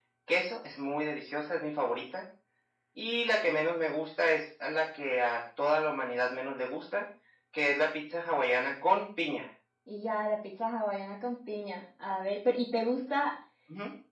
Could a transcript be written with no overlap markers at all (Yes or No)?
Yes